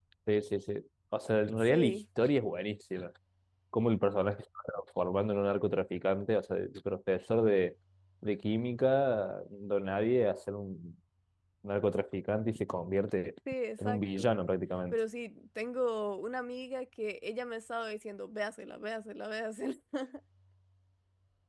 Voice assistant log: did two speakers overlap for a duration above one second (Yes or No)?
No